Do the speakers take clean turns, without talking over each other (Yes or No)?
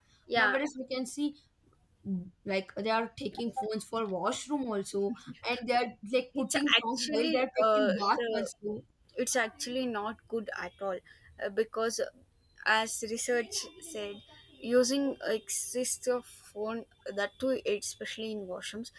No